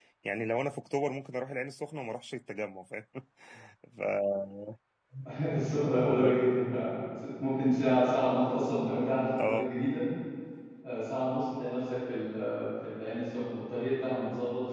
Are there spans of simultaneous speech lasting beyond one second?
No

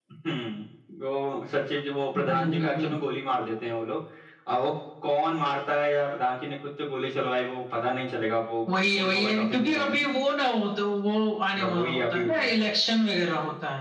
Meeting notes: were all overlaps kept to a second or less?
No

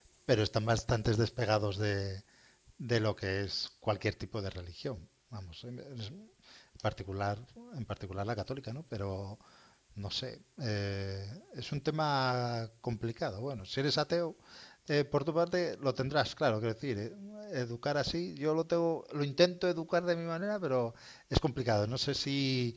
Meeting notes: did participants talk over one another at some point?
No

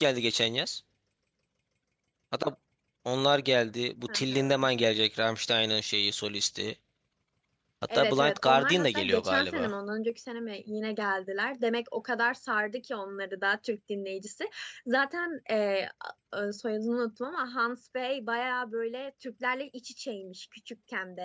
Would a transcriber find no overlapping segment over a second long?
No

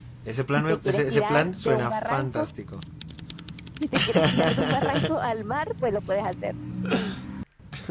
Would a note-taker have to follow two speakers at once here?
Yes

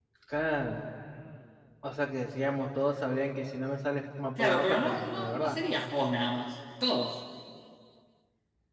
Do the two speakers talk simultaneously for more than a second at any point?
Yes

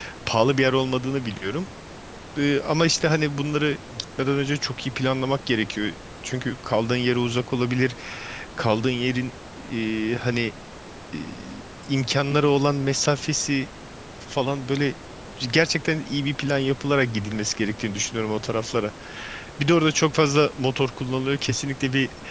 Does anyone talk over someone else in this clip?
No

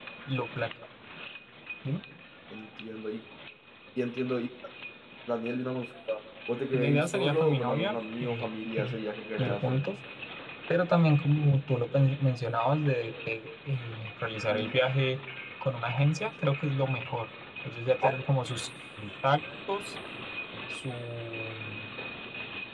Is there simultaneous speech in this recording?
Yes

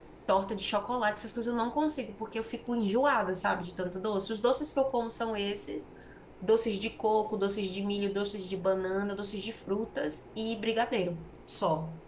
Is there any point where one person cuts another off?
No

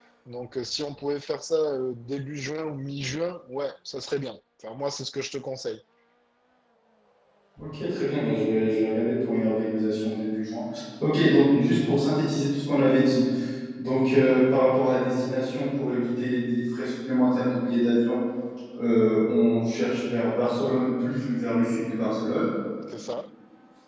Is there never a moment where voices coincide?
Yes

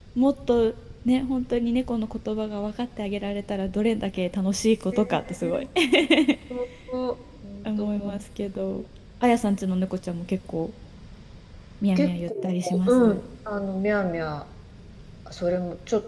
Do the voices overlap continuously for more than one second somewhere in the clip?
Yes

